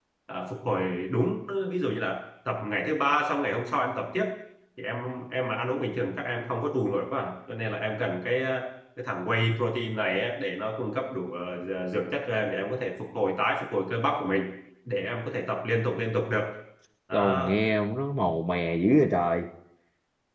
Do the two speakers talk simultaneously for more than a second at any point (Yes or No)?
No